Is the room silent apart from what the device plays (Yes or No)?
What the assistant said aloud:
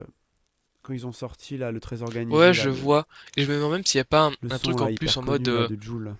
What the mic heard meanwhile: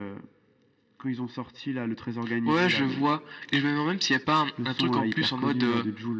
Yes